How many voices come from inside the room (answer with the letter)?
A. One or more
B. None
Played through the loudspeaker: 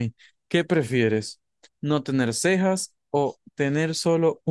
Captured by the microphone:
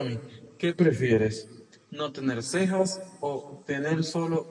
B